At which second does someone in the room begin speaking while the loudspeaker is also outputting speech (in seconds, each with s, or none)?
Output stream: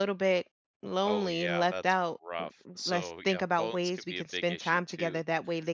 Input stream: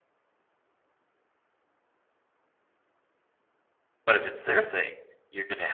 4.1 s